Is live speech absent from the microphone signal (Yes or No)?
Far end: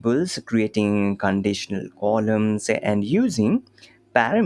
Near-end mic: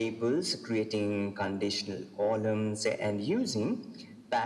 Yes